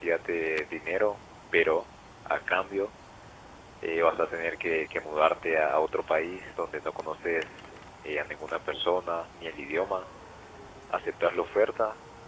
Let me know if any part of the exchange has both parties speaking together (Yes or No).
No